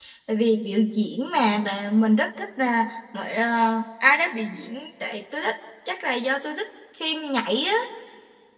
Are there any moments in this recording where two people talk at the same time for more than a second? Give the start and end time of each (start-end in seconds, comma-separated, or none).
none